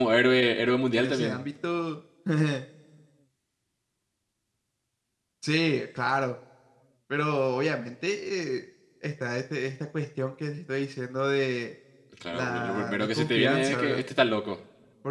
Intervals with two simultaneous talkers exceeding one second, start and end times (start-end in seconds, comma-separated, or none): 12.3-14.0